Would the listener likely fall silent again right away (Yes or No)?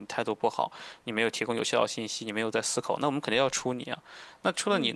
Yes